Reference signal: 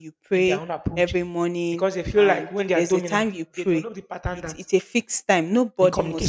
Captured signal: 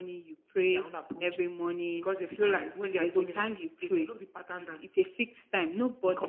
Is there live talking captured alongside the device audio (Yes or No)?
No